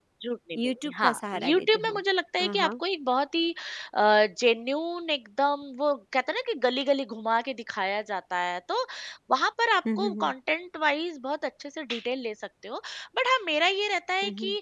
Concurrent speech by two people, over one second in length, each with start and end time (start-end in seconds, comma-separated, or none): 0.6-2.0